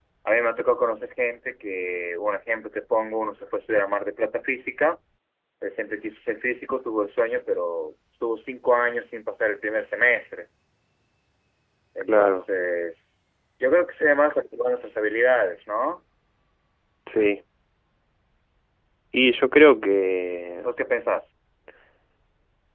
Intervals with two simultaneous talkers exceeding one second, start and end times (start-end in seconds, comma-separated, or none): none